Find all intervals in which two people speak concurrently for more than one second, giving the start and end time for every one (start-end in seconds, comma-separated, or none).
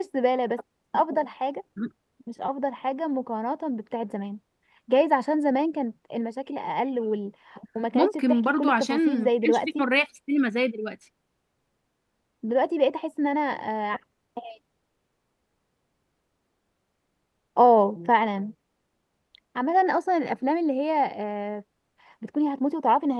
7.9-9.8